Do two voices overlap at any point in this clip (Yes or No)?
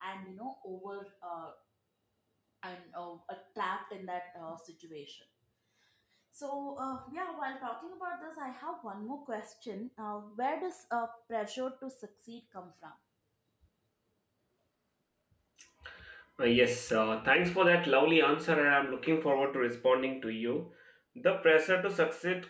No